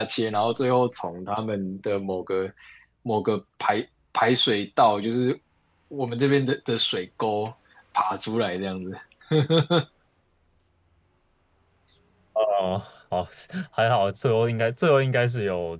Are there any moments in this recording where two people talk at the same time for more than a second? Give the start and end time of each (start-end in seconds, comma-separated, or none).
none